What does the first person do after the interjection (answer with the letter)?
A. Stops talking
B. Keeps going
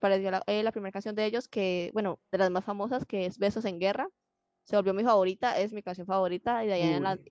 B